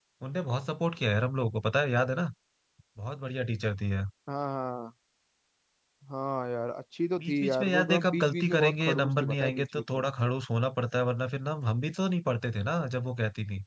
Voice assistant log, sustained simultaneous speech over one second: present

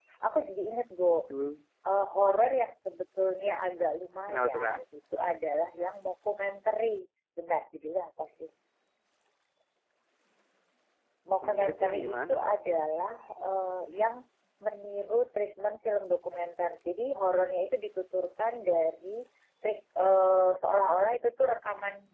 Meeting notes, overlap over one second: present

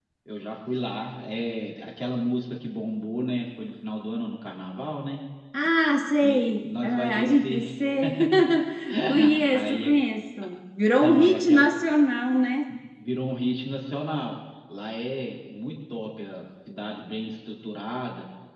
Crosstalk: present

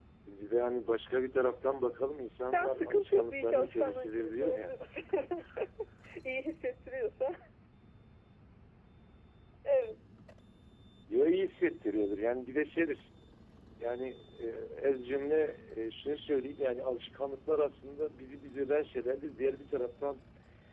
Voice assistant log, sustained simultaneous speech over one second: present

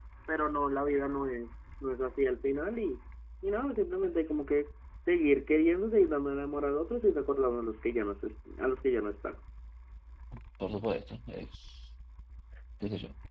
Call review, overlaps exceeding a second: none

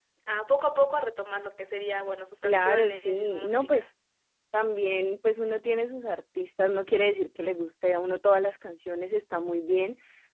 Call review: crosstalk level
present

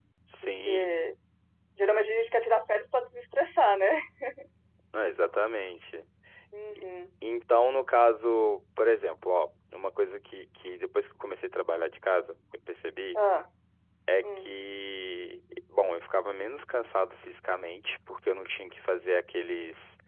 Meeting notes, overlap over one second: none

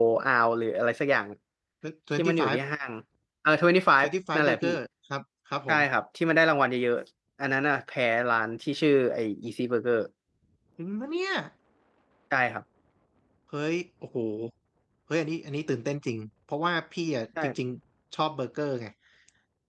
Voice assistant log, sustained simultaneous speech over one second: none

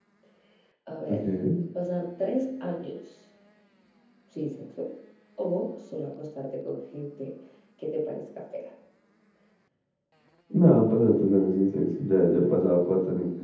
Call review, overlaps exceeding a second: none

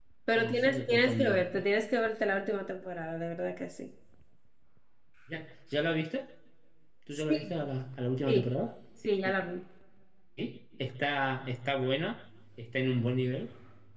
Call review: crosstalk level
present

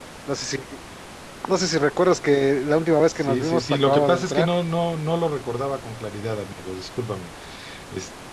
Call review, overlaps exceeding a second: present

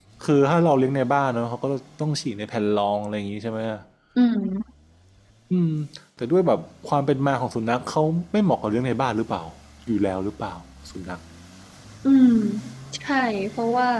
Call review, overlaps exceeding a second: none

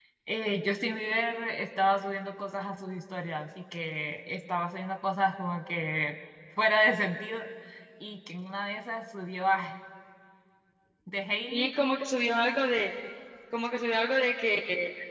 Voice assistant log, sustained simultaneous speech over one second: none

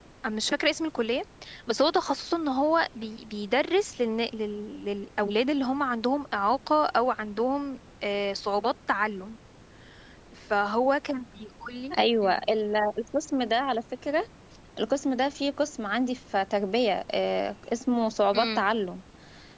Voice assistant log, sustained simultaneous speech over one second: none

